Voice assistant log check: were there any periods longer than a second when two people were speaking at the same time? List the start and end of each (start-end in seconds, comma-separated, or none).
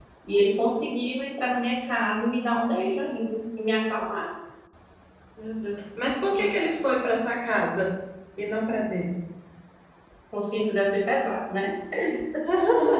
none